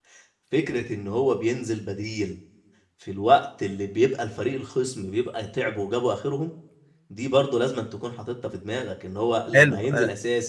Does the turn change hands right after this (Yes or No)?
No